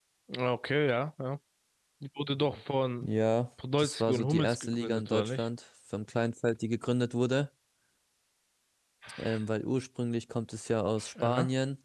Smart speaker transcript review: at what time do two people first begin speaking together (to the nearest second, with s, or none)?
4 s